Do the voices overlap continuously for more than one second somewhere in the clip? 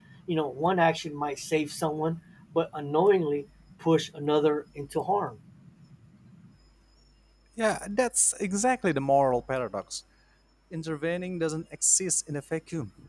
No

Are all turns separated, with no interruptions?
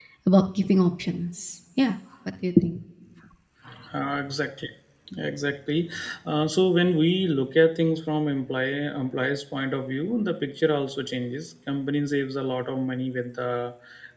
Yes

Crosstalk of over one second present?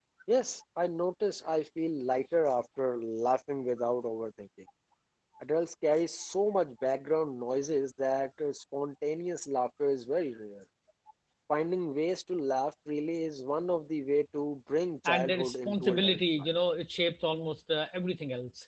Yes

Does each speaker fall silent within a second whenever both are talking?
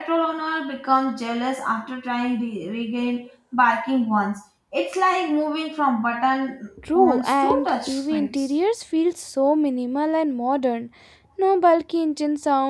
No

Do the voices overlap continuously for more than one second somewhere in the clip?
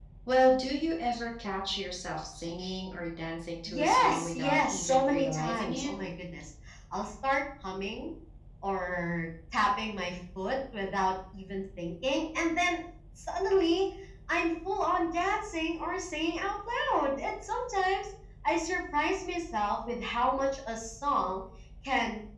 Yes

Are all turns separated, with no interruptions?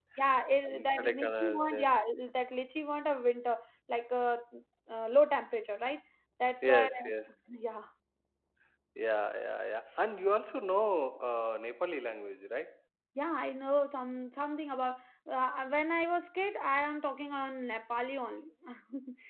No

